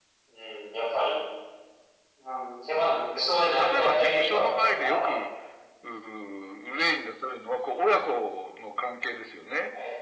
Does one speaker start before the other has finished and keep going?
Yes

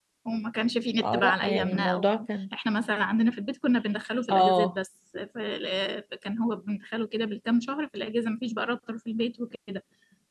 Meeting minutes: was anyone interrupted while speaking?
Yes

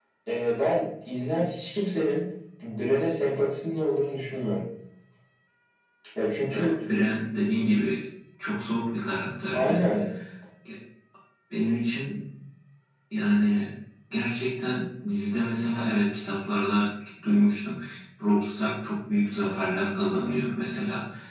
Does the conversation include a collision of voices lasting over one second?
No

